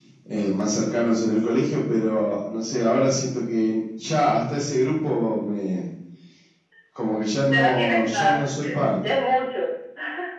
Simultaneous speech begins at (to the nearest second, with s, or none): 8 s